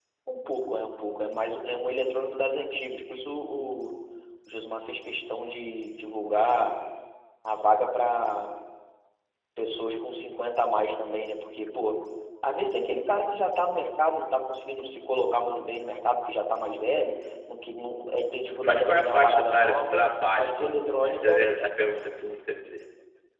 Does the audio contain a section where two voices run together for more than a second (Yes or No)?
Yes